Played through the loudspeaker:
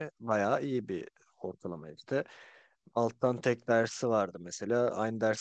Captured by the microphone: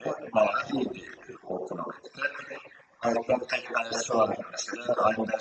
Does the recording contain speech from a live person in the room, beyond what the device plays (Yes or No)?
No